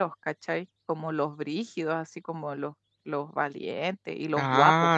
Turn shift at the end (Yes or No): Yes